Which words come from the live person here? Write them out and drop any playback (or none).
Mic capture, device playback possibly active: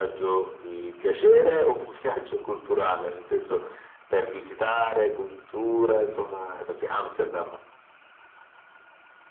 none